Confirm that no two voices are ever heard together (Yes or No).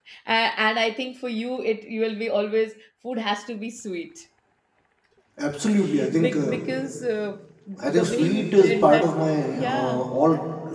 No